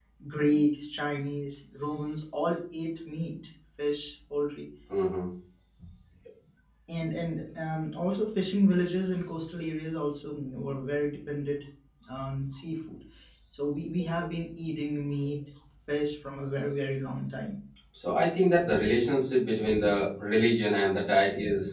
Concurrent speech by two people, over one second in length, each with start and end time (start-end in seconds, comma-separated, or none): none